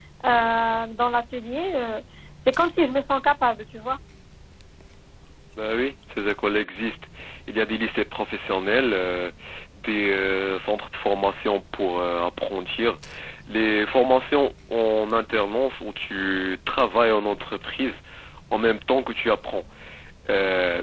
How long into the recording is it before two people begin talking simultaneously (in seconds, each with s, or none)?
none